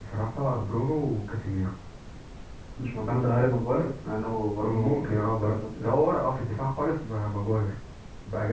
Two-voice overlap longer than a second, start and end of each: 4.6-5.9

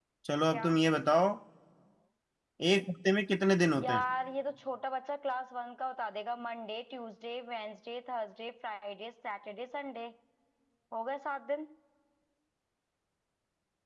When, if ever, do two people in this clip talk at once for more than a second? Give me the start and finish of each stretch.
none

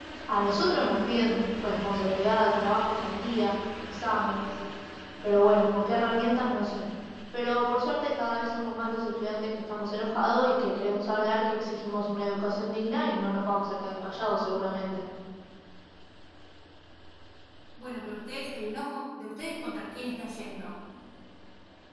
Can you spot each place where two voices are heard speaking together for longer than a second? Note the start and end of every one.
none

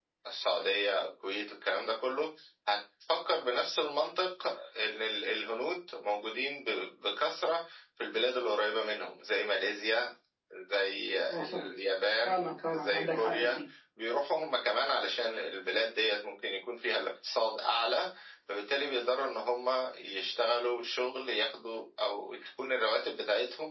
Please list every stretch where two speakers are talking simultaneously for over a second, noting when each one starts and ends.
12.2-13.6

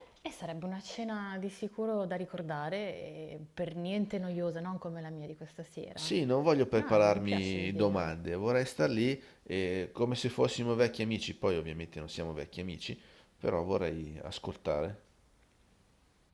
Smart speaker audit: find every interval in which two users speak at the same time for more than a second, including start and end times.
6.7-8.1

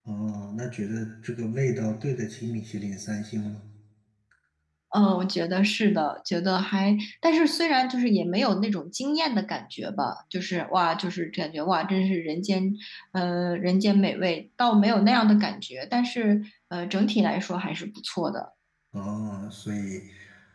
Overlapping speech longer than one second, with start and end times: none

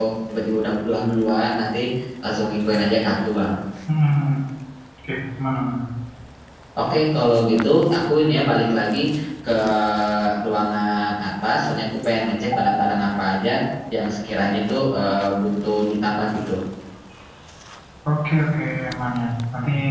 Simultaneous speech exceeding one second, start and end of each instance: none

